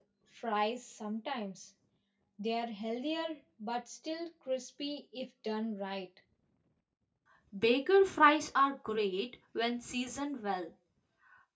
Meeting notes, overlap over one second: none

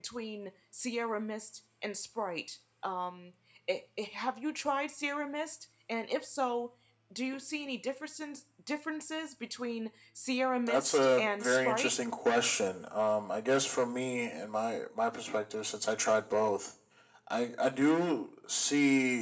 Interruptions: present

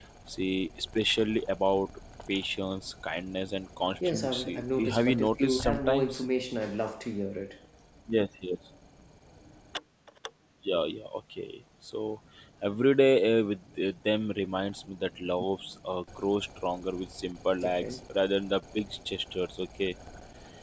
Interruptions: present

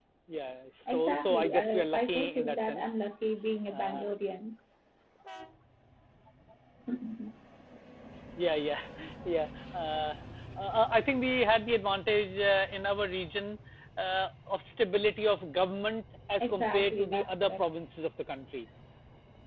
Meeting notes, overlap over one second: present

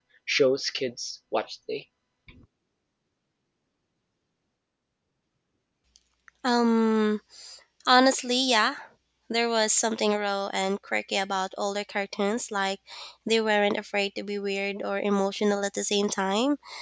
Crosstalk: none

